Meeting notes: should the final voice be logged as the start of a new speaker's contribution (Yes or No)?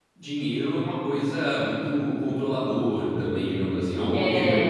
No